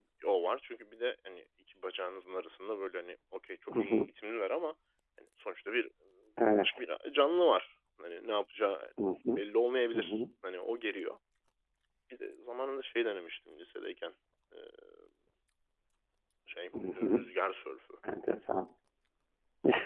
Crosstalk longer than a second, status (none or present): none